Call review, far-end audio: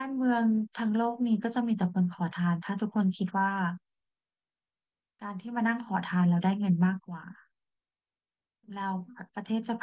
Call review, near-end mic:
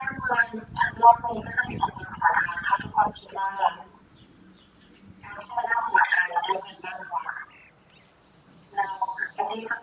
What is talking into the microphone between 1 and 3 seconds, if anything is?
echo only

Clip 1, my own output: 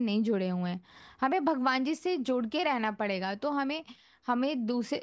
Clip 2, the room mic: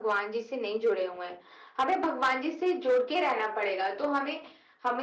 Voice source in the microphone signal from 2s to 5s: echo only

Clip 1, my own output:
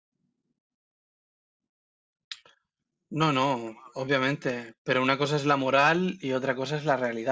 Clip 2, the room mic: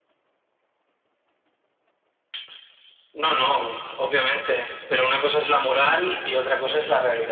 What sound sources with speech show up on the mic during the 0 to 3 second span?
neither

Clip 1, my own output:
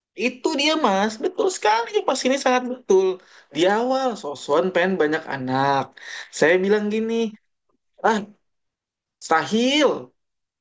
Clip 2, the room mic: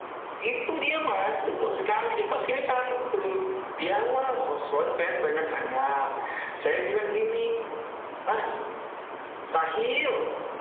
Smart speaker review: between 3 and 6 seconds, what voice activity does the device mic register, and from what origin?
echo only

